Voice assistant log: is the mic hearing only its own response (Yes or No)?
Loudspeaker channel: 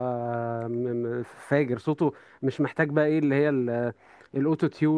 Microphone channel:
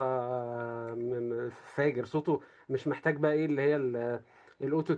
Yes